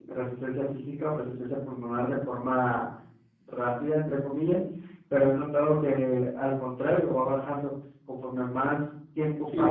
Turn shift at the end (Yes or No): Yes